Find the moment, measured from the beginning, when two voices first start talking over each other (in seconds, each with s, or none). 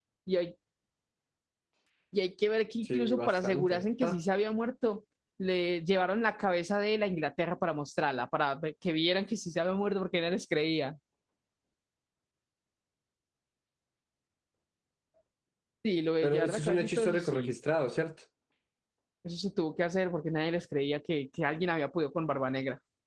2.8 s